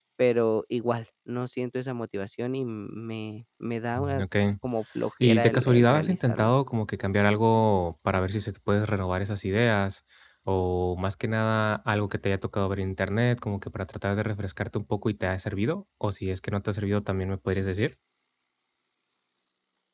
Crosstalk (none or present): present